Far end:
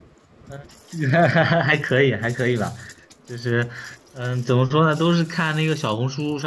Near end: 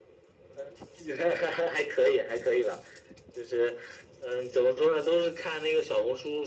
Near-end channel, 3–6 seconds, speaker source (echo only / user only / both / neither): echo only